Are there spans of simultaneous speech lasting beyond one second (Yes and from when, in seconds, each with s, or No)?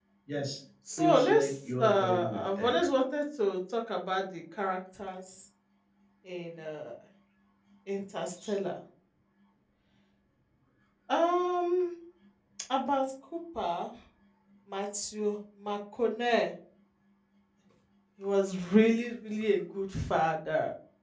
Yes, from 1.0 s